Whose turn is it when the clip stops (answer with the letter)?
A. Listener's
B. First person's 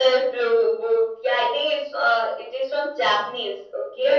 A